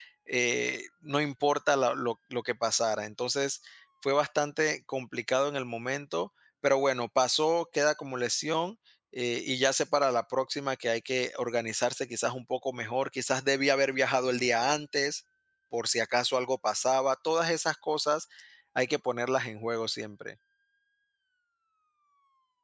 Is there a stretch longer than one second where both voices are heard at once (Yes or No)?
No